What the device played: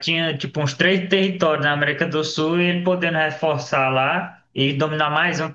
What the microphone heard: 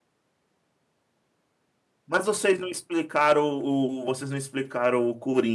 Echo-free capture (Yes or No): Yes